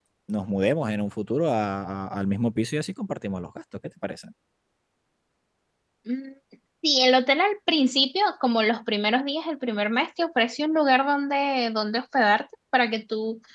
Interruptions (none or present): none